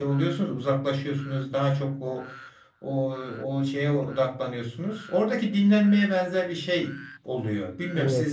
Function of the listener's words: taking over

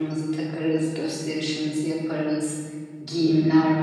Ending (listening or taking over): listening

